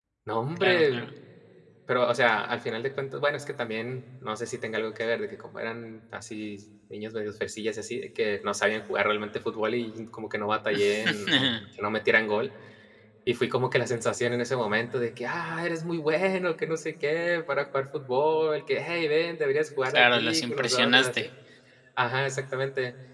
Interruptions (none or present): present